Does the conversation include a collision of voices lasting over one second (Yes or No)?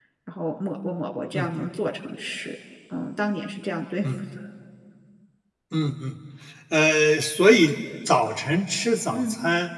No